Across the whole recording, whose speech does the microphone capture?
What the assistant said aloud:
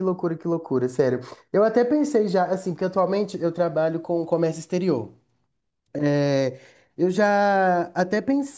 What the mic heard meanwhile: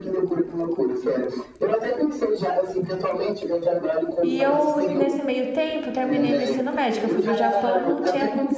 both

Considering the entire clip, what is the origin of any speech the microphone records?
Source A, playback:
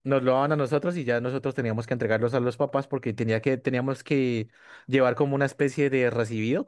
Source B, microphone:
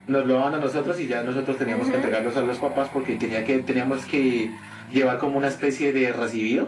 both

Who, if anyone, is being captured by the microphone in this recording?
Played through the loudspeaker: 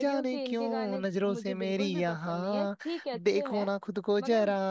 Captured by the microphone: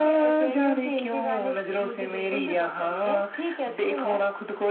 echo only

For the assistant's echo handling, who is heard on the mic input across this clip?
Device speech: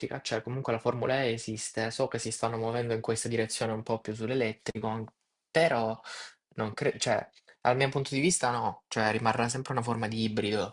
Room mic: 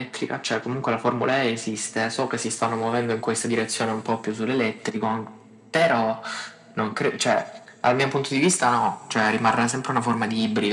echo only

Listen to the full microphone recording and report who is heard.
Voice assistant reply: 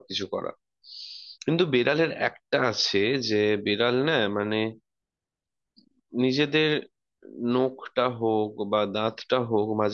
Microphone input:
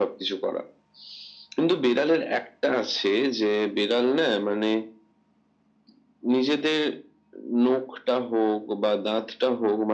echo only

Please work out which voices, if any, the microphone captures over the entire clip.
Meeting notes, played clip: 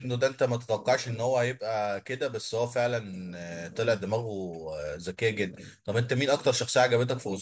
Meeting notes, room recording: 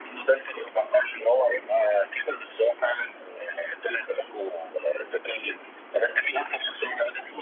echo only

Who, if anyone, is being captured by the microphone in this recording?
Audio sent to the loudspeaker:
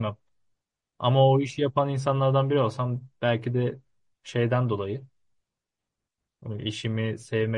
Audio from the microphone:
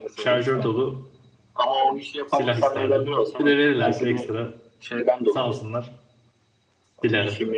both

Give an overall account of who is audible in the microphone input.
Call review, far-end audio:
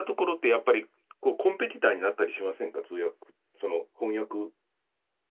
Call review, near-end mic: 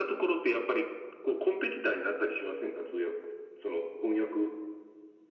echo only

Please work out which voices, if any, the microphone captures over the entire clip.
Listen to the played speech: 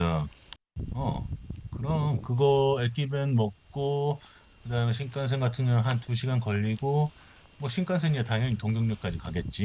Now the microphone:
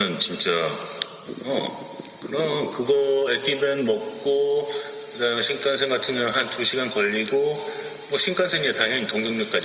echo only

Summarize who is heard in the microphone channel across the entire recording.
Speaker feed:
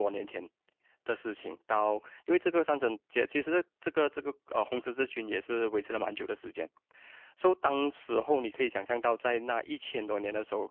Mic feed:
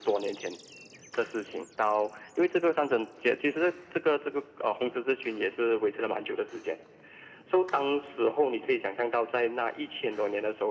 echo only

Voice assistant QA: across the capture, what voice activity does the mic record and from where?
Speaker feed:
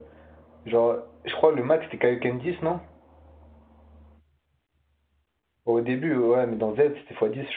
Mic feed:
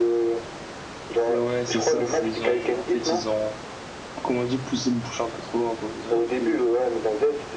both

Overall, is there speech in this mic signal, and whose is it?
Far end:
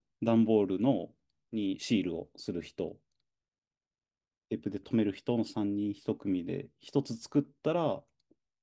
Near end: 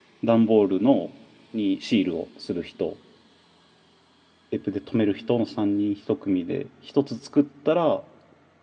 echo only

